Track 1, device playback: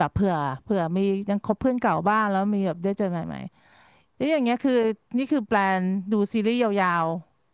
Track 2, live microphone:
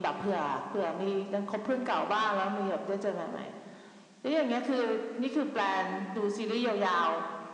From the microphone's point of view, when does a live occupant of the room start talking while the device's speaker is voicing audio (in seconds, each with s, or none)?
none